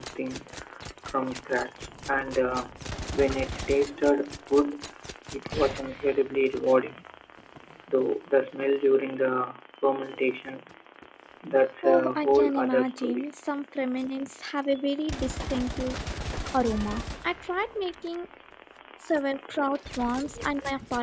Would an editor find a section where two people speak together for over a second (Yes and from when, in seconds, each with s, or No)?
Yes, from 11.8 s